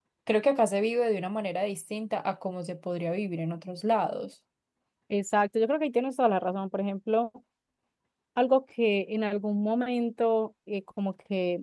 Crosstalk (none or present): none